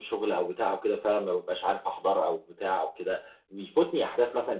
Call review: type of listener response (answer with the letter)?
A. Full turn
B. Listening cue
B